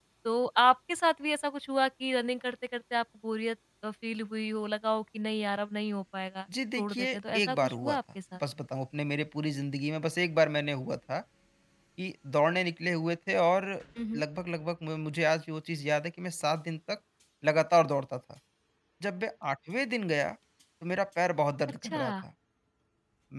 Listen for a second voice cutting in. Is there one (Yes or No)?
Yes